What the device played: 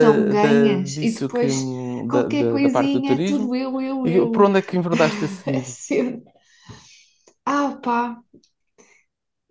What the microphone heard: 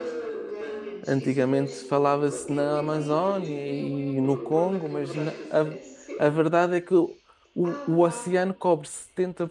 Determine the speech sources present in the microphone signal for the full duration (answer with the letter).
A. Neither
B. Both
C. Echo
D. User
B